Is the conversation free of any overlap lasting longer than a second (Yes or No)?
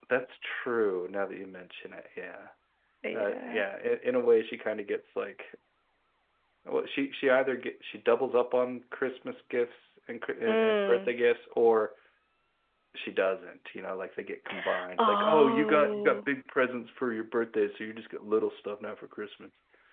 No